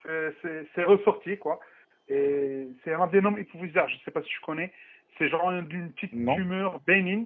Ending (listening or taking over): listening